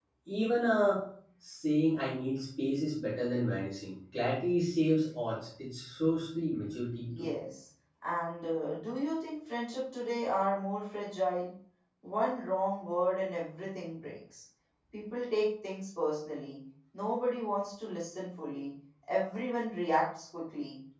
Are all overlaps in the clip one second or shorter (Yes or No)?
Yes